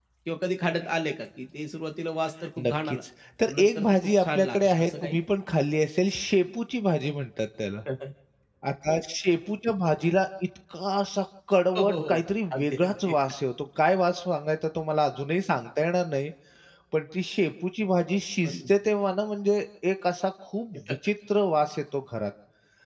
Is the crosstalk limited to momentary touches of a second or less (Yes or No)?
No